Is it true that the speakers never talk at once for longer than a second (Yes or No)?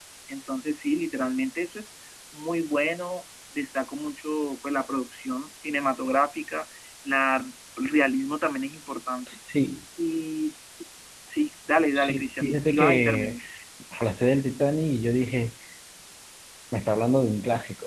No